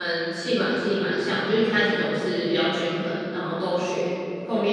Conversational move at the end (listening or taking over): listening